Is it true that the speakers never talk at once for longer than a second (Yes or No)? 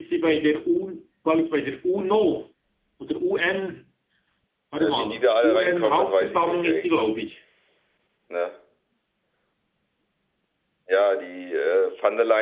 No